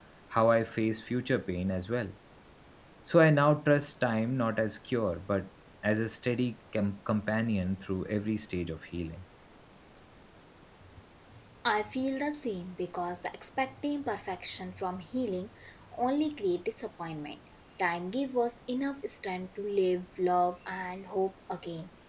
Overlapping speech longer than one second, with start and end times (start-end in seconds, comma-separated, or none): none